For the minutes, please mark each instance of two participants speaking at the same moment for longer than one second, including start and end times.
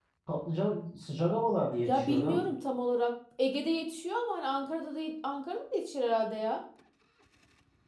none

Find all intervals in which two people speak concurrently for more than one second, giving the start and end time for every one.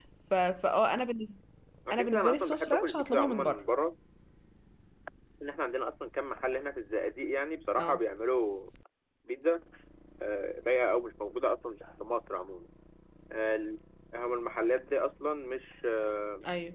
1.9-3.6

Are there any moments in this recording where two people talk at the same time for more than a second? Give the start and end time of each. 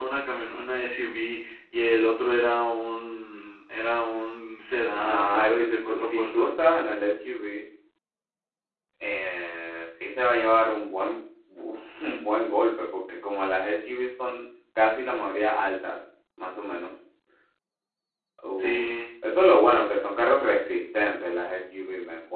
5.0-6.5

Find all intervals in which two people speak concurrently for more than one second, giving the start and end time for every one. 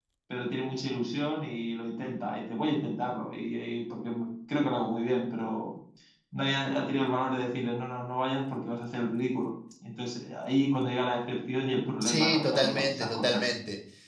12.0-13.5

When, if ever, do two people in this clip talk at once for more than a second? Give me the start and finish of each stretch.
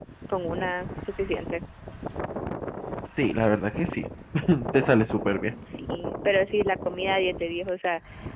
none

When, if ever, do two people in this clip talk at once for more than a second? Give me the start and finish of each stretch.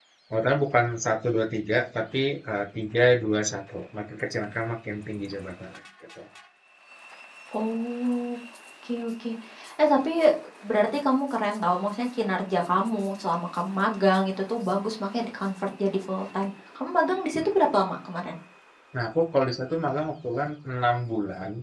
none

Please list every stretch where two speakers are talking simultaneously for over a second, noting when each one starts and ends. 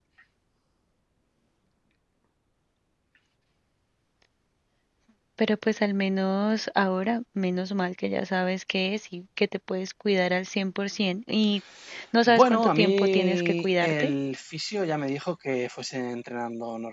12.2-14.1

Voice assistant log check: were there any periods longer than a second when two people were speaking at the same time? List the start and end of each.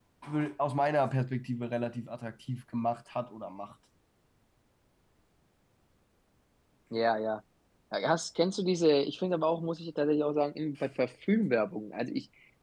none

